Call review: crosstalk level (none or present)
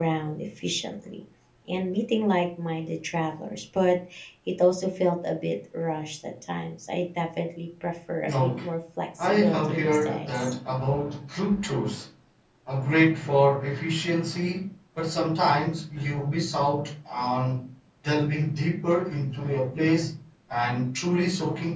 present